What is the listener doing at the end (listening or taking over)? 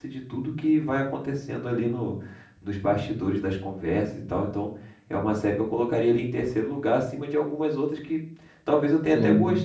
listening